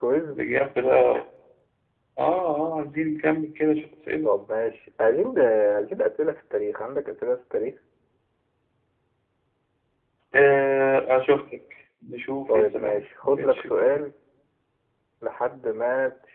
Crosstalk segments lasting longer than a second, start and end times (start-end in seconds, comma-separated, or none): 12.5-14.1